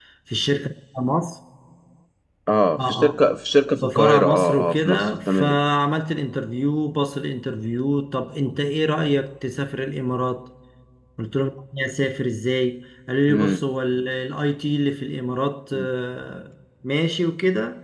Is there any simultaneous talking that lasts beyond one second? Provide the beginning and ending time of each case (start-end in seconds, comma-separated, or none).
3.8-5.6